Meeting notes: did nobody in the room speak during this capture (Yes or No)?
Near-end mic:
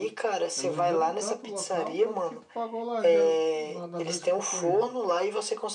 No